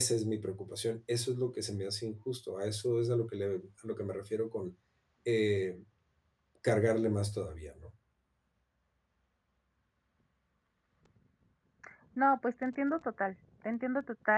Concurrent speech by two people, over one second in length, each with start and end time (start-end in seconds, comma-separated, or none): none